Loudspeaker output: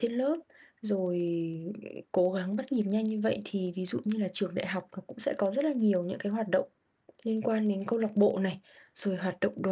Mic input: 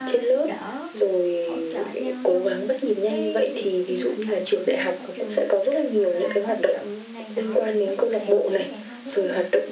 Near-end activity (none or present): present